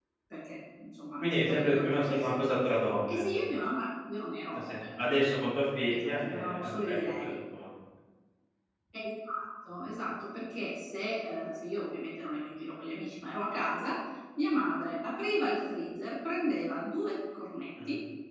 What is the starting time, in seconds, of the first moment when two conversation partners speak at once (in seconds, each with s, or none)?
1.2 s